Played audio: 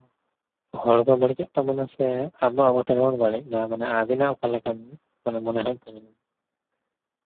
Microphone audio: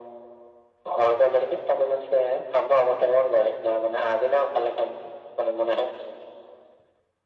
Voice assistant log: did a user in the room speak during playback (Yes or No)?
No